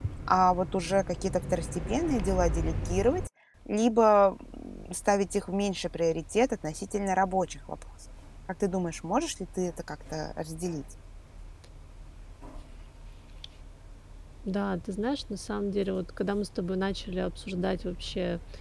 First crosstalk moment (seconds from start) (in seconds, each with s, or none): none